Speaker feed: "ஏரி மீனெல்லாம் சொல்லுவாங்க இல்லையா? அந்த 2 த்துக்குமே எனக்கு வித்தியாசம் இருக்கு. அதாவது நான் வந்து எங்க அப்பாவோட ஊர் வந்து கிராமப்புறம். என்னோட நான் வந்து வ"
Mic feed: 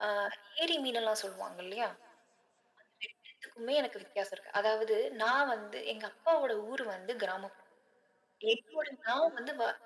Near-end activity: none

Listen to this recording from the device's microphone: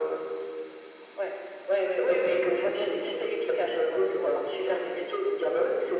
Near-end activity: none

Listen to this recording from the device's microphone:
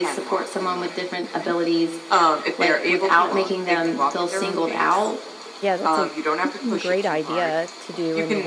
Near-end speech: present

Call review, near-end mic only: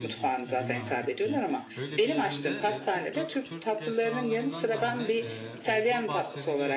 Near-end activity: present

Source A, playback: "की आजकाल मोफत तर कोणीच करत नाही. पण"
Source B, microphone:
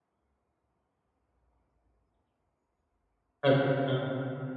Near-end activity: present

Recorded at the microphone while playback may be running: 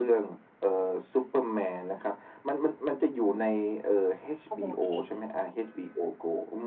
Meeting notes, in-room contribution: present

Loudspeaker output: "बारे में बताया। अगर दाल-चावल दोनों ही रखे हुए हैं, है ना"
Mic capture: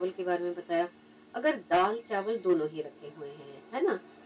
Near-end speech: none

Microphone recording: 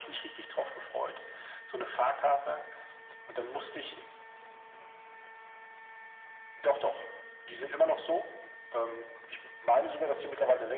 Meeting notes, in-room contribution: none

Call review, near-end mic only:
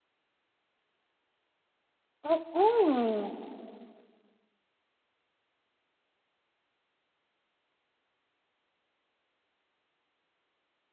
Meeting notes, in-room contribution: present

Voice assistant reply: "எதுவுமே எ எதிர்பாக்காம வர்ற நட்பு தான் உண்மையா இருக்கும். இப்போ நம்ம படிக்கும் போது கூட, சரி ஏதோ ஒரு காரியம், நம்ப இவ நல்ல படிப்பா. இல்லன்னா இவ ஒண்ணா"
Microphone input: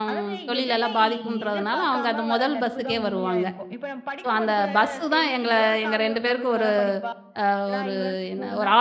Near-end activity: present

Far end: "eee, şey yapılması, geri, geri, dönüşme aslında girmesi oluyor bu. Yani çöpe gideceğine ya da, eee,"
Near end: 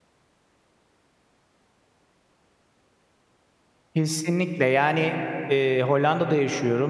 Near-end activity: present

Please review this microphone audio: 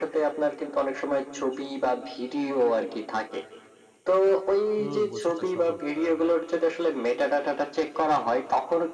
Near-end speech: present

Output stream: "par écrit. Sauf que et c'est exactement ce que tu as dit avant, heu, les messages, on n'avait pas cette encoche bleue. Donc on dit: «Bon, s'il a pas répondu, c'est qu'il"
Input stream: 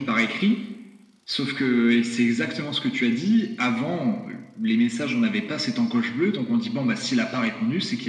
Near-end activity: none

